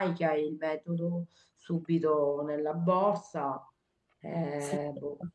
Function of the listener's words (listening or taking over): taking over